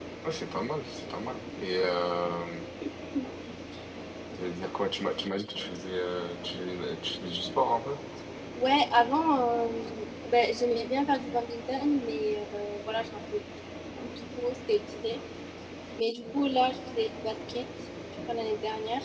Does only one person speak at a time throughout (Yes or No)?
Yes